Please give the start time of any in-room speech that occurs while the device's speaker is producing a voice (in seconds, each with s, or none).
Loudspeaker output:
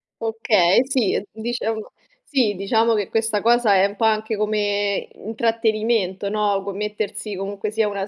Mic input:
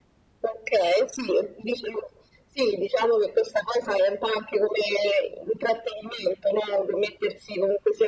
none